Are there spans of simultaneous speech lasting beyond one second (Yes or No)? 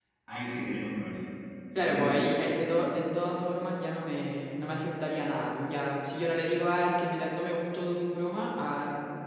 No